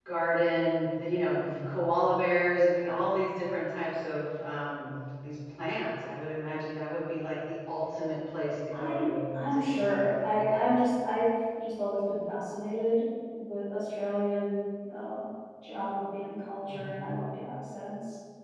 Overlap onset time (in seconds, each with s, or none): 8.7 s